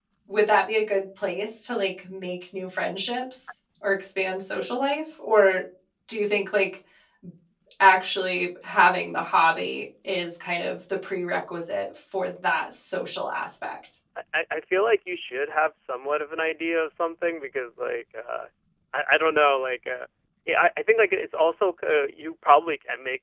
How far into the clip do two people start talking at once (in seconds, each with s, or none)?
none